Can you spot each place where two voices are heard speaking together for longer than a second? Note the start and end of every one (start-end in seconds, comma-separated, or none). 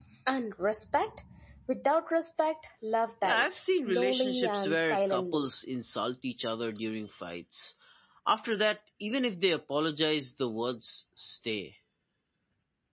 3.2-5.5